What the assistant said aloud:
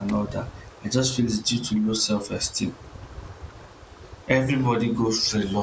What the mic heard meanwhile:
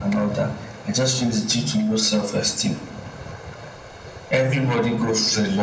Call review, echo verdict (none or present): present